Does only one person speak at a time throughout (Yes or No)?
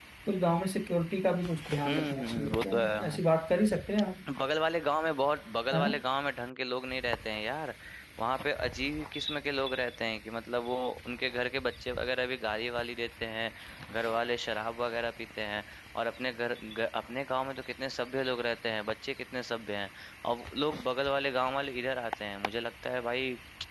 No